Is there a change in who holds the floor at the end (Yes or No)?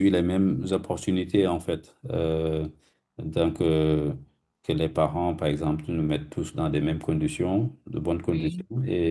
No